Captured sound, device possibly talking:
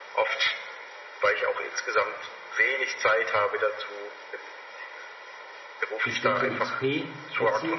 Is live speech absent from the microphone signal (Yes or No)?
No